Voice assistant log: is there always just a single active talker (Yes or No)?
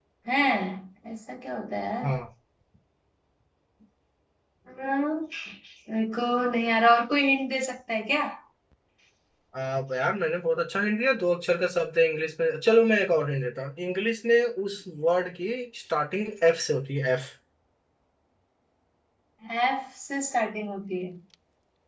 Yes